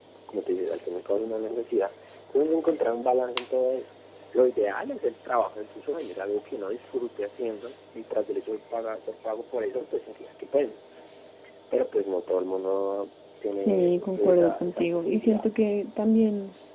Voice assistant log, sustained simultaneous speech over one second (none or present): present